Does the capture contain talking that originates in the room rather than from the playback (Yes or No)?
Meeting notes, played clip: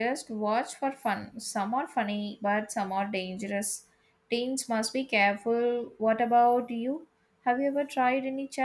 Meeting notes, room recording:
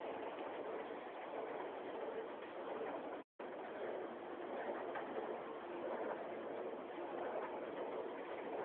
No